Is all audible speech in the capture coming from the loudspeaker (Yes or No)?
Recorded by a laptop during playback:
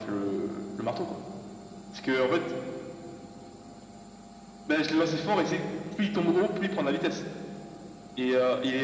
Yes